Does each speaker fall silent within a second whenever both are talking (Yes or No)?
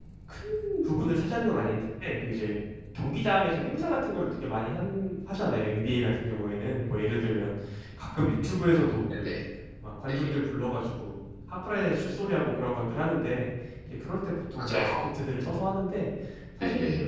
Yes